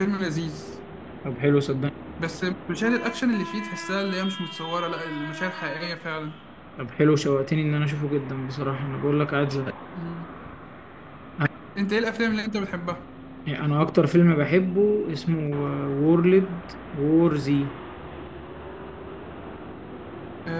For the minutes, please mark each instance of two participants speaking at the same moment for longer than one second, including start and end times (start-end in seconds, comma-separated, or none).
none